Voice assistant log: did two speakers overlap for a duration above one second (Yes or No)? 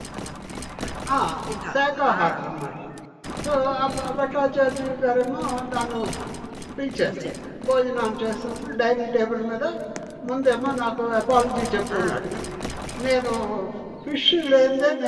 No